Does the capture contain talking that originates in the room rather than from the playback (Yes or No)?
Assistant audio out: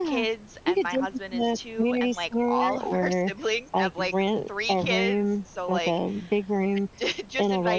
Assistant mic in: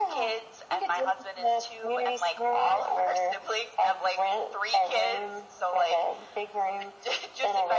No